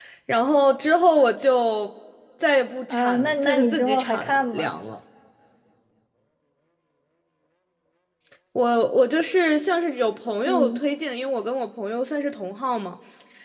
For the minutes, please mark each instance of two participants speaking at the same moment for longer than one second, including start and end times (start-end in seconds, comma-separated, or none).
2.9-4.7